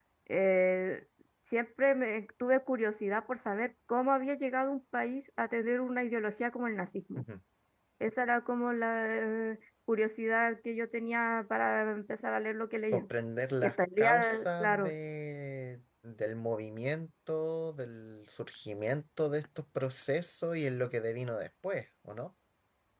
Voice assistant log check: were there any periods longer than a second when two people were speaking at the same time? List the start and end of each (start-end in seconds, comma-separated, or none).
13.6-14.9